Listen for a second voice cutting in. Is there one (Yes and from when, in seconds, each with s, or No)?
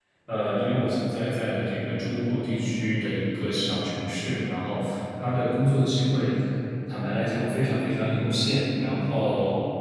No